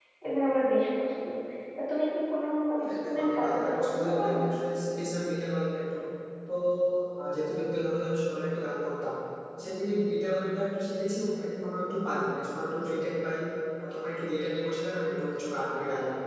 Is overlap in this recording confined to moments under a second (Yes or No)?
No